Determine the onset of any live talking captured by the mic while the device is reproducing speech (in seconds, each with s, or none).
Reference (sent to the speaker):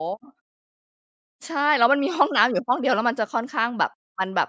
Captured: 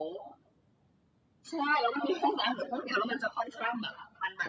none